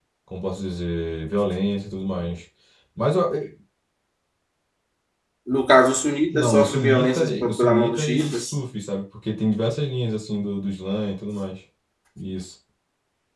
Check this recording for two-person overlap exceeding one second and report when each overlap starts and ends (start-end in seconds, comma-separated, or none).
6.3-8.5